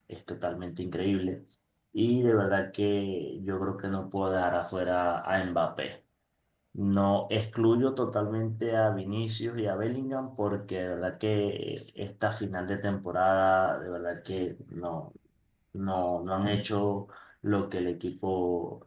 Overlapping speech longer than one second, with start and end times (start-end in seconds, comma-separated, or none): none